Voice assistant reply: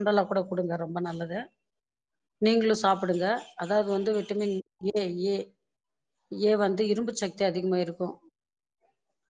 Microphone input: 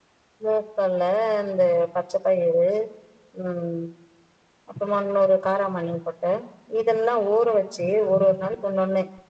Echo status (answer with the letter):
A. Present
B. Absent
B